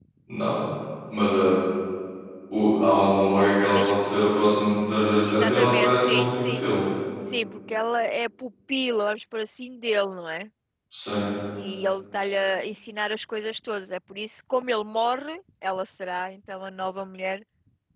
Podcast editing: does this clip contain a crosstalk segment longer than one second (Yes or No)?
Yes